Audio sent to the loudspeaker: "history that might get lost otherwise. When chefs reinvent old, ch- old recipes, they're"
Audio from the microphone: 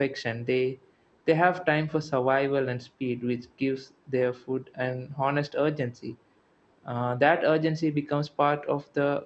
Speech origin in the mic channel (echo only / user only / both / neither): user only